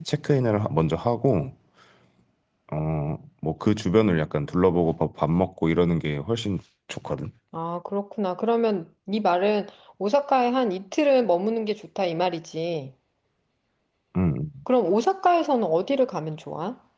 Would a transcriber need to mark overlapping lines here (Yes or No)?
No